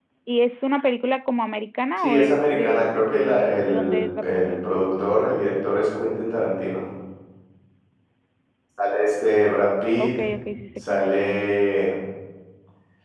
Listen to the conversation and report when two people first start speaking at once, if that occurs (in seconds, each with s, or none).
2.0 s